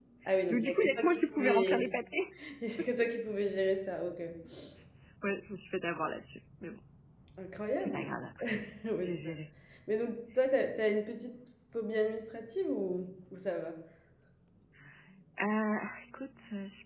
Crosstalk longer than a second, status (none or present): present